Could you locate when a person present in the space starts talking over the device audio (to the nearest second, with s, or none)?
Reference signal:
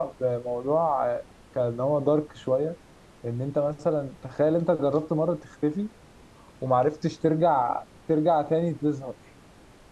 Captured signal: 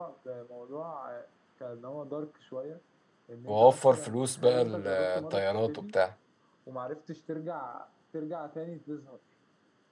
3 s